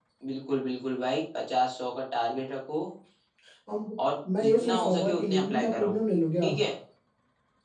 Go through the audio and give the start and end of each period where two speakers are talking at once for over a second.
4.4-5.9

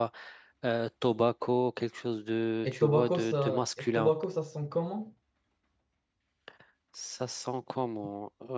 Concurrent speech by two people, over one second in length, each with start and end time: 2.6-4.1

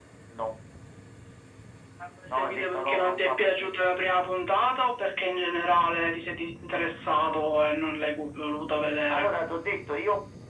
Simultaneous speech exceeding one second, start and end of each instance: 2.3-3.7

